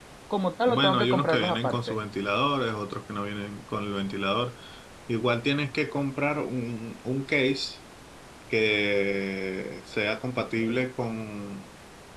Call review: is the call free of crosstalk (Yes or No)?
No